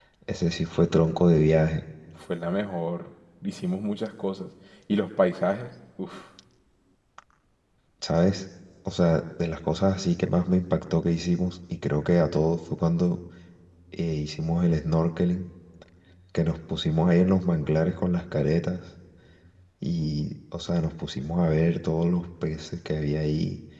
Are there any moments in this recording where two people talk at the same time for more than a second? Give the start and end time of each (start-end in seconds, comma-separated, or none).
none